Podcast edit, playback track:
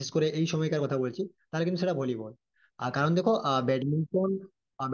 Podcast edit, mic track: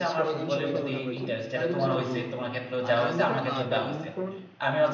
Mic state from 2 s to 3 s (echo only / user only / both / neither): both